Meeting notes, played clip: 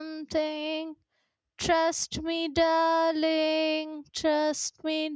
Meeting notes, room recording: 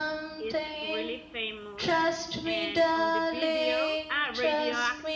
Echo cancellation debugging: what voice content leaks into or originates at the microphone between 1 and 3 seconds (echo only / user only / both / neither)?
both